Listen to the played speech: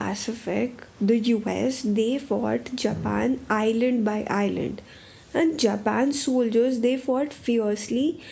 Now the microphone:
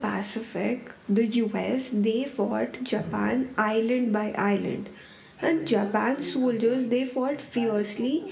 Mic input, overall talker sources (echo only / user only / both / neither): both